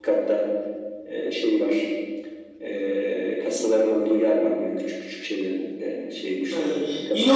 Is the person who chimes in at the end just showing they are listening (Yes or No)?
No